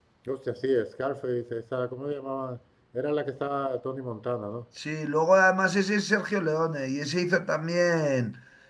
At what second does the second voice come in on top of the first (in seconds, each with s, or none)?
none